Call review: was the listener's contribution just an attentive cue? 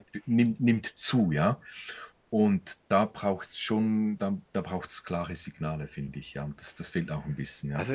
No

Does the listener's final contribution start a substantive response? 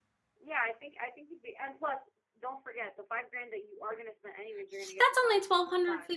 Yes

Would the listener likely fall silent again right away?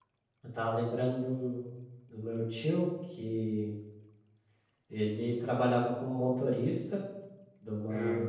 Yes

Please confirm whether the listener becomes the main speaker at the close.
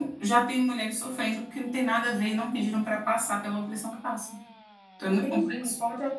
Yes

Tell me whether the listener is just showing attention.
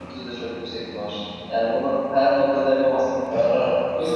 No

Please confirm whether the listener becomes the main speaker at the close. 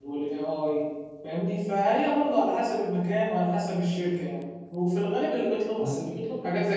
No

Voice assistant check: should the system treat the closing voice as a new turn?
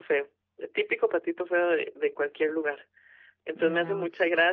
No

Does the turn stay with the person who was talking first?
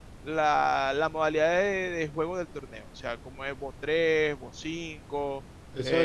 No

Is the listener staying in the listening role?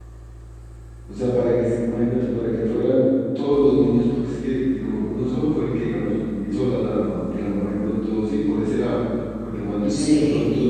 Yes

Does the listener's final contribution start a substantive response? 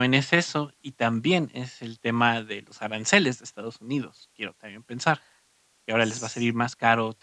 No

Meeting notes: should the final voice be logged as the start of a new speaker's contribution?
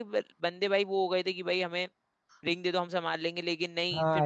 No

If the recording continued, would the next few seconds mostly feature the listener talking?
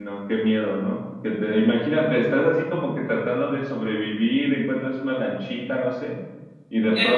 Yes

